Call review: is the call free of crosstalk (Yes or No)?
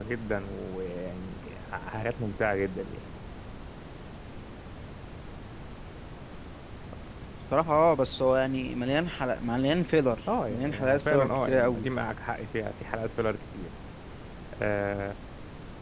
No